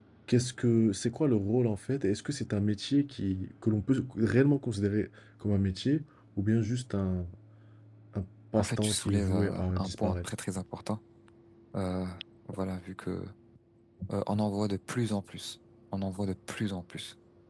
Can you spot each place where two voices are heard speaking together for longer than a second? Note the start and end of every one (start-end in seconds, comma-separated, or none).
8.6-10.3